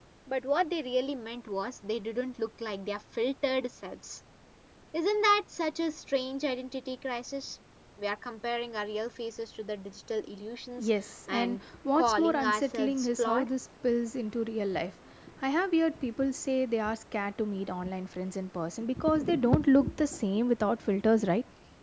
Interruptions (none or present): present